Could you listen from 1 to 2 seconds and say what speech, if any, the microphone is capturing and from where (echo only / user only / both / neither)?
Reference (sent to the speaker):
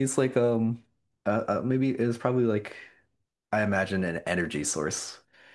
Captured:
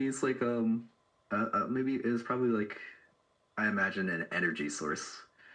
echo only